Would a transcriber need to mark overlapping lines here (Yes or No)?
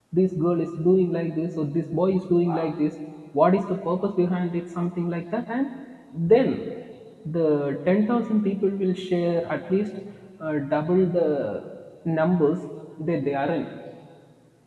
No